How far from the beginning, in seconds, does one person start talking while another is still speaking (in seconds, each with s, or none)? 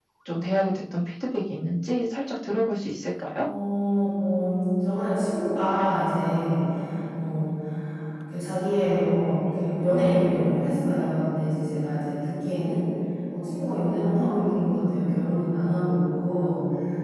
none